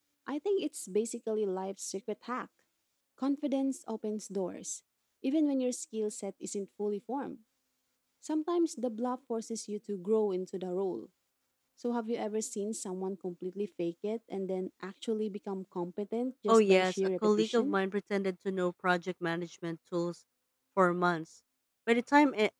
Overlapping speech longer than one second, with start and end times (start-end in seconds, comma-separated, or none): 16.5-17.8